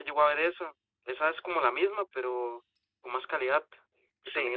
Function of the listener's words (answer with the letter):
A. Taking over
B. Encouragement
A